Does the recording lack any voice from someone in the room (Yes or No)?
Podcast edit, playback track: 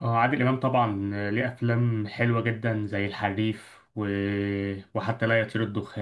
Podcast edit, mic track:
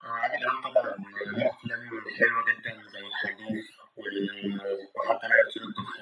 Yes